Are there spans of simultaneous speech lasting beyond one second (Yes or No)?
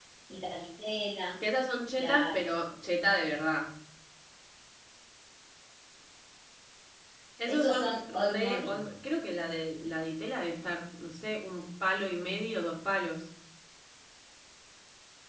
Yes